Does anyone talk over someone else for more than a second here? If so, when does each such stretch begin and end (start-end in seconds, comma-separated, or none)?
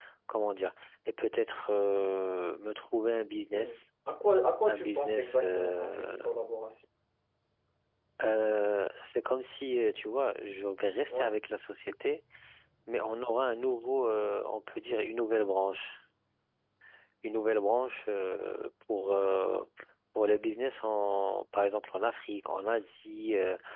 4.7-6.2